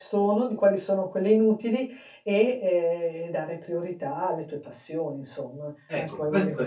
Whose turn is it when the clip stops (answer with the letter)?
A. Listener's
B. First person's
A